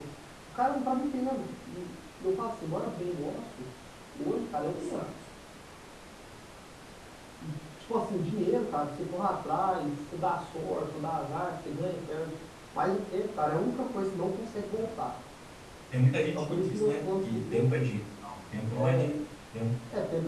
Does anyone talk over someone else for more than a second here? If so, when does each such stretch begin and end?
16.3-17.7

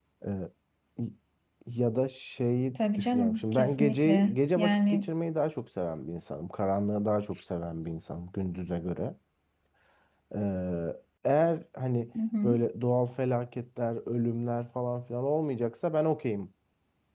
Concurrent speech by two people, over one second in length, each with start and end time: 2.8-5.1

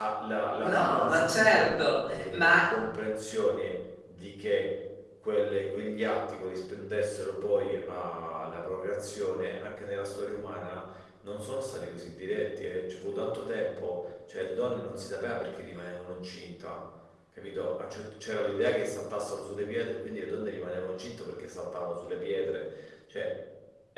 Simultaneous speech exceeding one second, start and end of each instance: 0.6-2.5

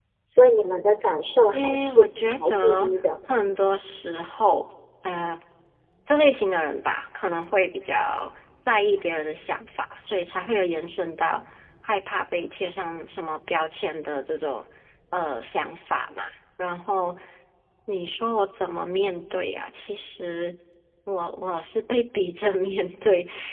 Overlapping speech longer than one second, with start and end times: 1.5-2.9

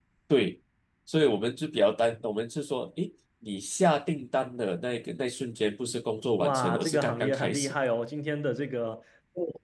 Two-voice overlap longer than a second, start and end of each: 6.4-7.7

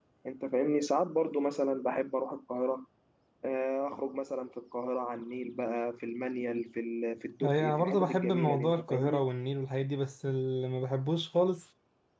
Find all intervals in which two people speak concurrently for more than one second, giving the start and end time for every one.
7.4-9.3

